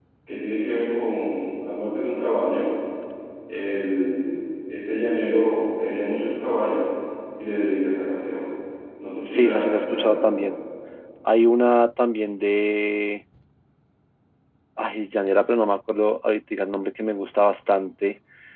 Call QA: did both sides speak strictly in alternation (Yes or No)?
No